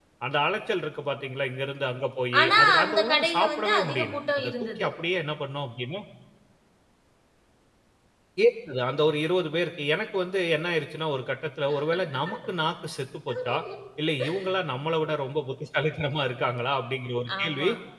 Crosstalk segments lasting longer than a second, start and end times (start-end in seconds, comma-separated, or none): 2.4-4.9